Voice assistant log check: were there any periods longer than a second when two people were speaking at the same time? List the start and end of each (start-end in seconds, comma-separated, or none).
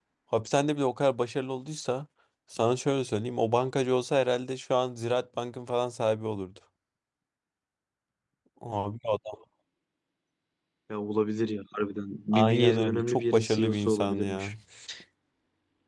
12.3-14.5